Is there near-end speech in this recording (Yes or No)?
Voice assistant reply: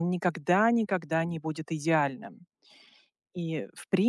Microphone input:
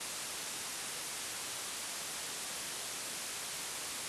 No